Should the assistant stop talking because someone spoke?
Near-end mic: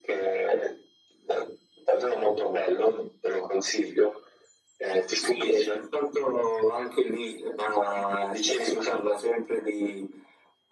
No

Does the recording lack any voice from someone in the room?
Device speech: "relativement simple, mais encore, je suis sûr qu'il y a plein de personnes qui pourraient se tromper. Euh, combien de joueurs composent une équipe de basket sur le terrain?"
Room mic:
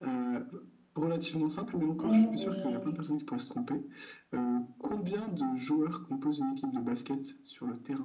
No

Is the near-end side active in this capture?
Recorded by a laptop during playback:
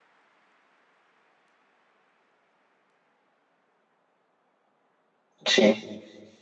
Yes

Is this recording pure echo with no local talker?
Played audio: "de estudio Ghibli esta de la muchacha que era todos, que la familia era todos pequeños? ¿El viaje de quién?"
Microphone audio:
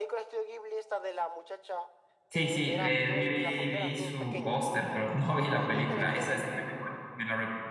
No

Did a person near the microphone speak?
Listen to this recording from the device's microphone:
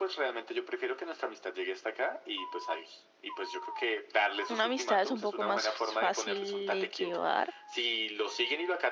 Yes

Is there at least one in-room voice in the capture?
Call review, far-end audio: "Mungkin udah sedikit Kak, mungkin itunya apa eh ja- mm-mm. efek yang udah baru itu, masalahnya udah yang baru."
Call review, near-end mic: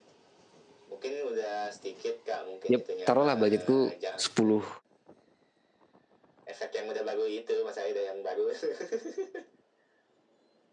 Yes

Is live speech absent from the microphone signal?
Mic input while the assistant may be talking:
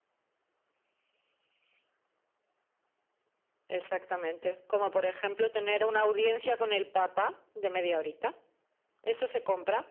Yes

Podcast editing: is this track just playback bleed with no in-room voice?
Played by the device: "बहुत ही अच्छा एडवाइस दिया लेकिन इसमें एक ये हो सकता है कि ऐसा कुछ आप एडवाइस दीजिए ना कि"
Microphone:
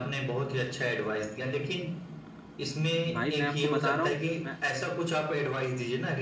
No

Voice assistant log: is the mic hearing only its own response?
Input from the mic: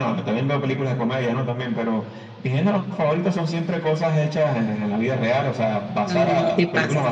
No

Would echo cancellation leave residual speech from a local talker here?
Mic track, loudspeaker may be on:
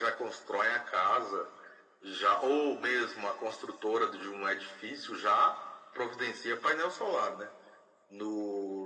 No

